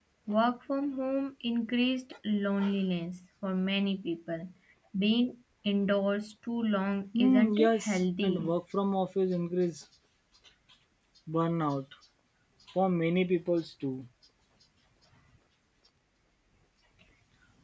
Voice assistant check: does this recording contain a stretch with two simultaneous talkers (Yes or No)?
Yes